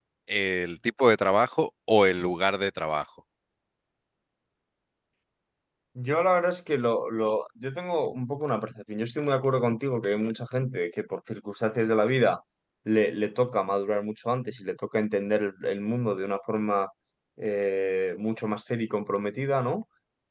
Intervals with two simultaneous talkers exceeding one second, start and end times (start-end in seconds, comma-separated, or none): none